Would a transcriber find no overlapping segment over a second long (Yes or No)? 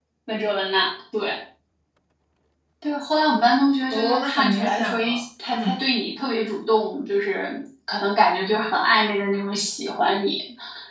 No